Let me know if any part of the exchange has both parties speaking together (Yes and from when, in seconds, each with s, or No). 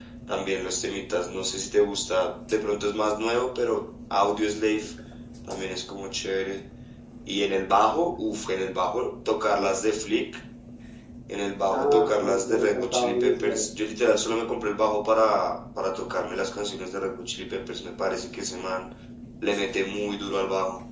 Yes, from 11.7 s